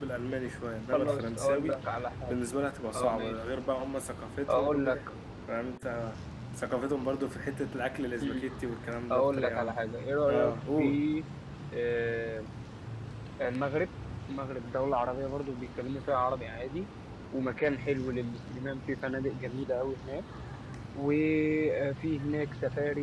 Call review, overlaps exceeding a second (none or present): present